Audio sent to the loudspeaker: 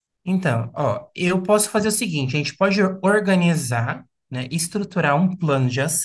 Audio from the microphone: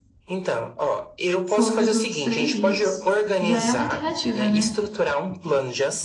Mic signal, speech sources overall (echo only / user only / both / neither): both